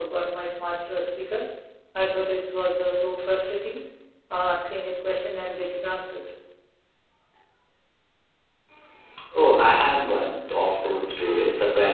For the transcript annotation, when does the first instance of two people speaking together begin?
none

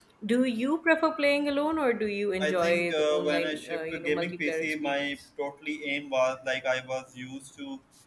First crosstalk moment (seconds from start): 2.4 s

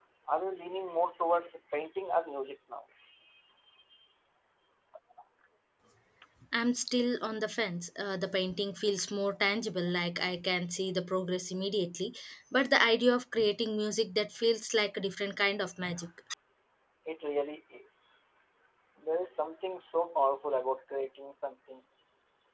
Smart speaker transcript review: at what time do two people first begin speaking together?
none

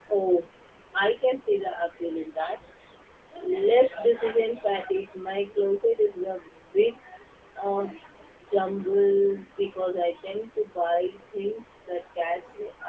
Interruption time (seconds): none

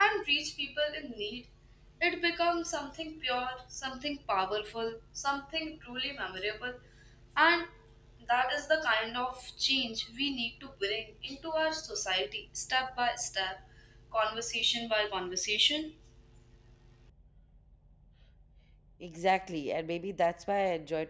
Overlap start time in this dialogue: none

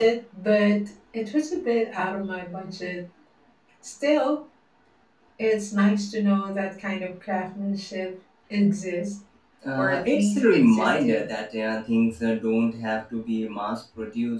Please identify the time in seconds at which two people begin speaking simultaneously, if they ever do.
9.8 s

